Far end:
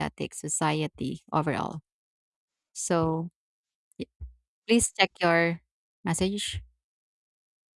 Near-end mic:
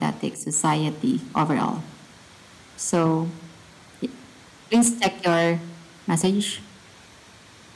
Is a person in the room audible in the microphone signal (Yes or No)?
No